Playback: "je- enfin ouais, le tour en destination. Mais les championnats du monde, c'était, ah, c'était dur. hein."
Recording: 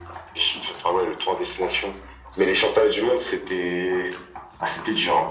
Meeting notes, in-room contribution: none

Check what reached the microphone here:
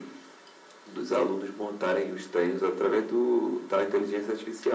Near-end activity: none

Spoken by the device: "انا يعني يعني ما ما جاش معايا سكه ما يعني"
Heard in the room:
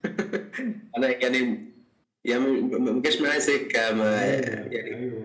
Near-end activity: present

